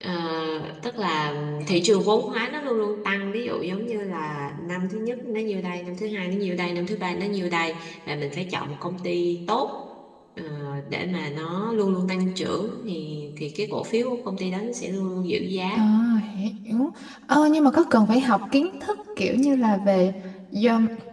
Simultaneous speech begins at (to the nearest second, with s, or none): none